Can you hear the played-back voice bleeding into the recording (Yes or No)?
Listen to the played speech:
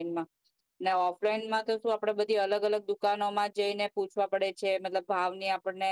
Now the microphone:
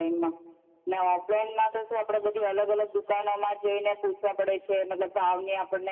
Yes